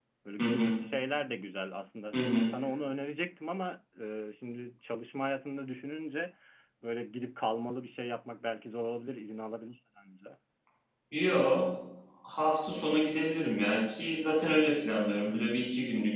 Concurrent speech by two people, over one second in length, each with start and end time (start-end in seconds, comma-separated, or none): none